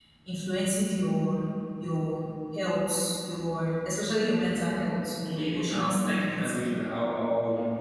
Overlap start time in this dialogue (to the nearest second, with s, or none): 5 s